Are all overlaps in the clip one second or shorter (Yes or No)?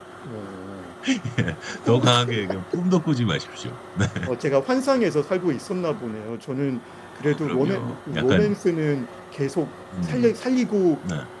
No